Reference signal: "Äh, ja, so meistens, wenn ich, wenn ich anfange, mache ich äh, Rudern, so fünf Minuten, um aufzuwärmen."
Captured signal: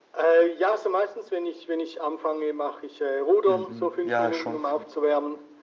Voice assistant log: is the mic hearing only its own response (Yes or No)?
No